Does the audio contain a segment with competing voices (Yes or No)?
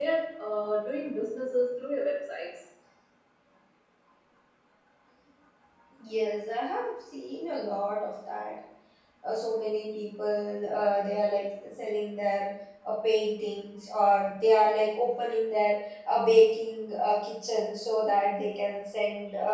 No